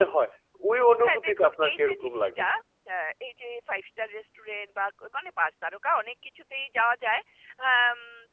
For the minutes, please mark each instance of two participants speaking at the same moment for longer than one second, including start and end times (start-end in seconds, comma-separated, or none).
1.0-2.5